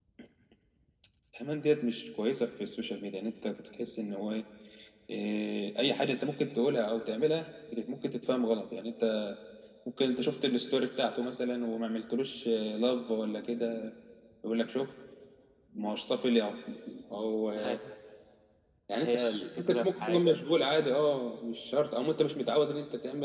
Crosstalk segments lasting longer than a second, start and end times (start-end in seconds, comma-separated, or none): 19.0-20.4